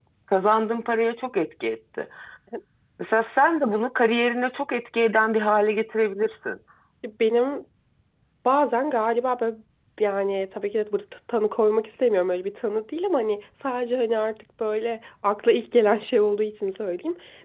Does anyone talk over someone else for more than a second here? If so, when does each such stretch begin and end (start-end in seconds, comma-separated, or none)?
none